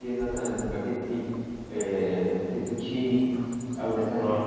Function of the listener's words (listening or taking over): listening